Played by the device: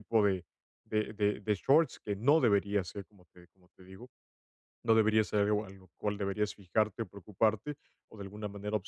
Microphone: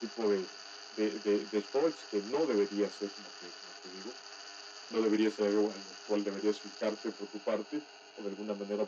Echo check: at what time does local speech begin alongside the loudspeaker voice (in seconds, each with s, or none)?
none